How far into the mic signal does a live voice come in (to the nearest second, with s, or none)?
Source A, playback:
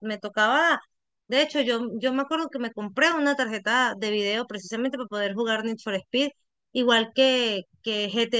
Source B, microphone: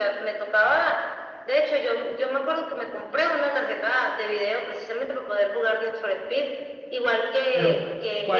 8 s